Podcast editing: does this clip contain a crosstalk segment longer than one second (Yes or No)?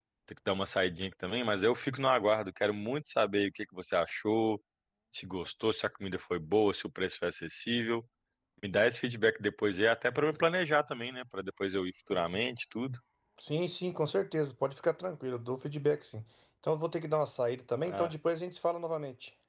No